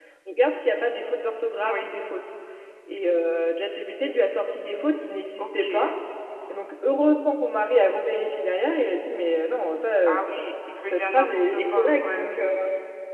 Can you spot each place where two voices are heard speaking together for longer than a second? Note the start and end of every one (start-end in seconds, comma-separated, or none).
10.1-12.5